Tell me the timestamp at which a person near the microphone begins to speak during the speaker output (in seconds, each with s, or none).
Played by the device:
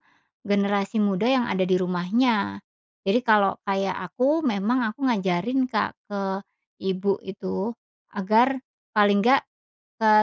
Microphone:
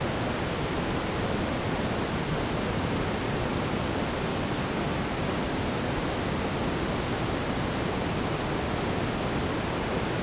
none